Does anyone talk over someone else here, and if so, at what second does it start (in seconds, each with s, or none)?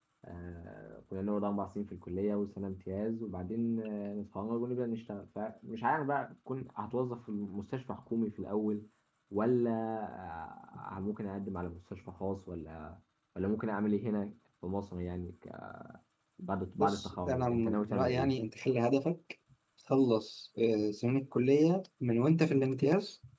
16.8 s